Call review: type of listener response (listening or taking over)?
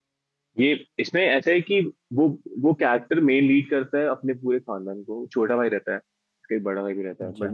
listening